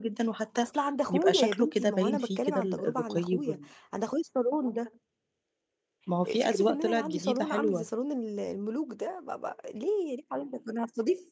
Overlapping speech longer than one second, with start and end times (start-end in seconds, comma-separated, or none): 1.1-3.6, 6.4-7.9